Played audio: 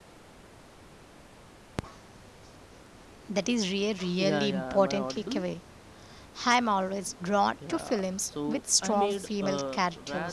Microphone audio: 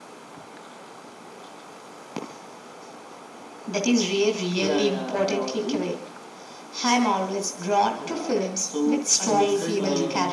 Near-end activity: present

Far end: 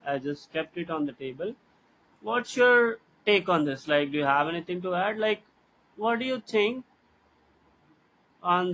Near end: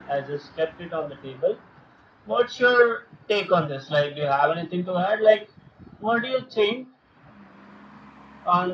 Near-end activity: none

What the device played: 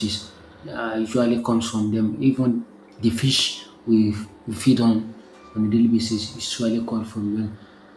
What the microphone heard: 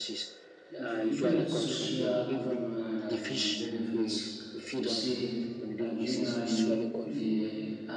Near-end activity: present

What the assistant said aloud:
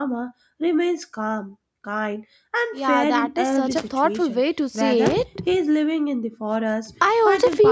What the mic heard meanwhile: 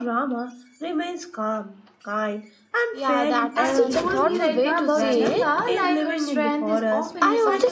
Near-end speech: present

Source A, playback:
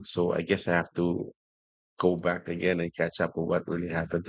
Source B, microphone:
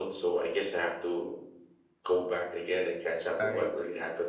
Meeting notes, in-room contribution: present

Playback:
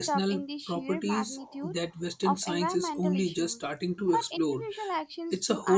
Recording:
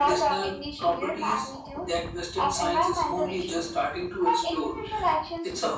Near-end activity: none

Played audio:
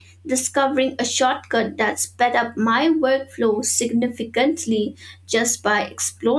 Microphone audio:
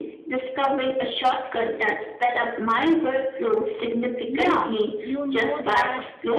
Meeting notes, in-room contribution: present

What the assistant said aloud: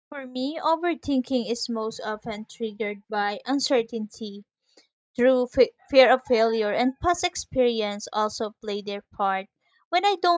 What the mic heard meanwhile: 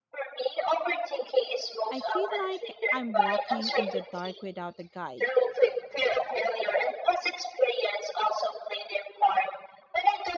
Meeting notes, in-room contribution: present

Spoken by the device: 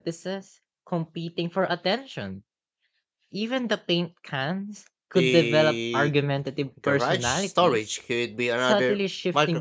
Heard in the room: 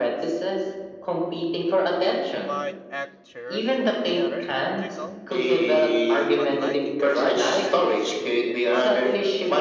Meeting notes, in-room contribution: present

